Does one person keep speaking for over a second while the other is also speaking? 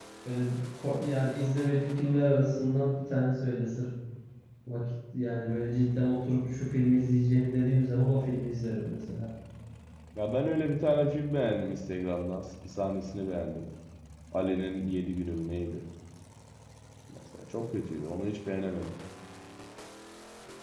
No

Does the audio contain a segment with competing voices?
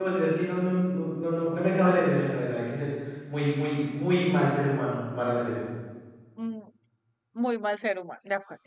No

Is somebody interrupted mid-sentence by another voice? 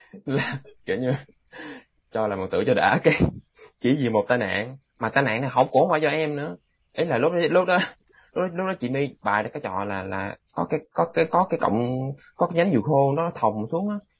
No

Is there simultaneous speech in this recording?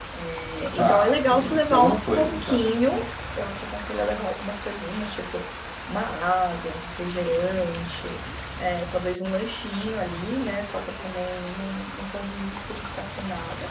Yes, from 0.8 s

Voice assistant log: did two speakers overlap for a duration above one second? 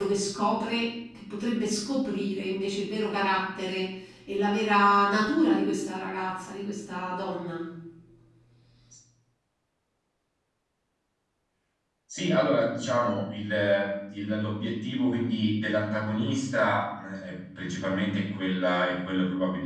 No

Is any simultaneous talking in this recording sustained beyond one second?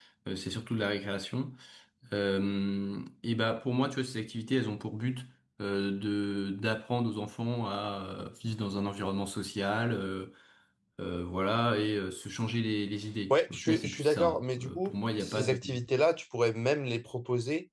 Yes, from 13.3 s

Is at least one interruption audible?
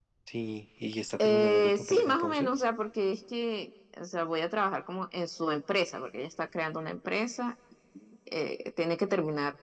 Yes, from 1.2 s

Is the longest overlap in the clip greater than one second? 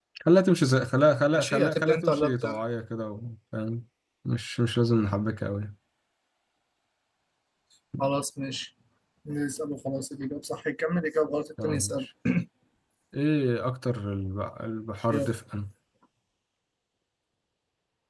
Yes, from 1.4 s

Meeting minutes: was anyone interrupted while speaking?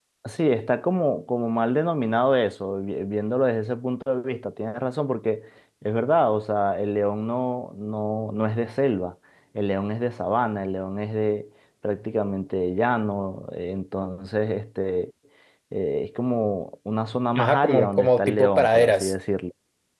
Yes, from 17.4 s

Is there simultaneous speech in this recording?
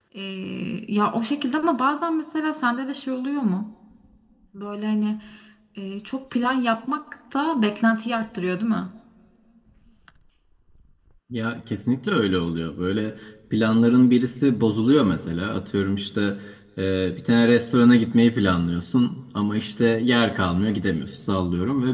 No

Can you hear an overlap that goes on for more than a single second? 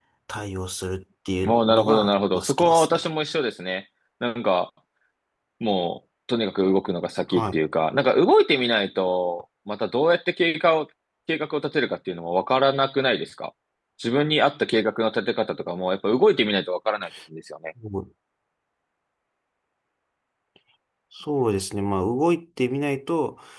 Yes, from 1.4 s

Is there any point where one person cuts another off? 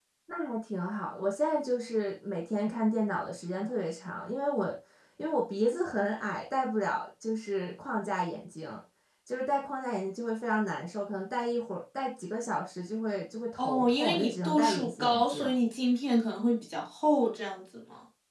Yes, from 13.6 s

